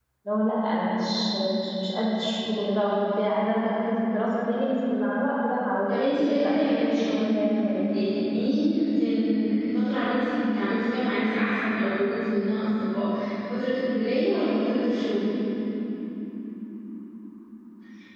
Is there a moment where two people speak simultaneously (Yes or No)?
Yes